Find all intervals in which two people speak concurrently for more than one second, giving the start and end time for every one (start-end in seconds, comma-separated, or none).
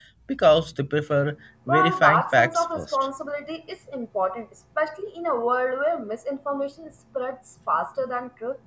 1.7-3.1